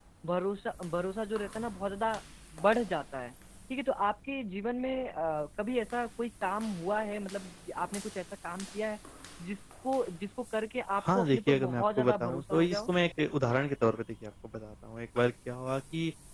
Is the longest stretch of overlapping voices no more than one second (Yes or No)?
No